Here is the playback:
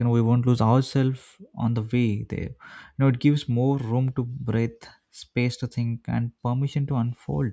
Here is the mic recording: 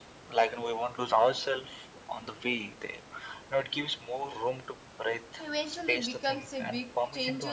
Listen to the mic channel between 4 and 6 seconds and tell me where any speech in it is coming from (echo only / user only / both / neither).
both